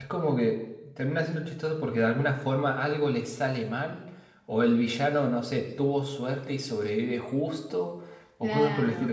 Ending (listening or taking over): taking over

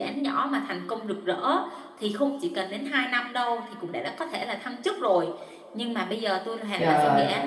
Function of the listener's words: listening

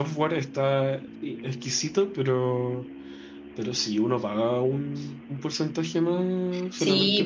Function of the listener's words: taking over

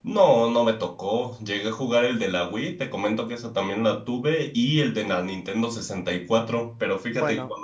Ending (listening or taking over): listening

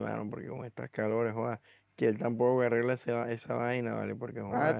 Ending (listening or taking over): taking over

